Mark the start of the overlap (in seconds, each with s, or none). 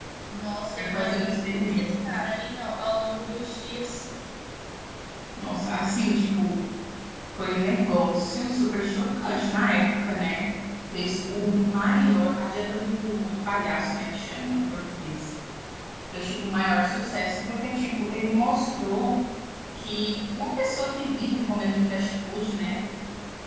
0.8 s